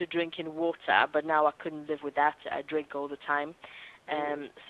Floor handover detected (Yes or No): No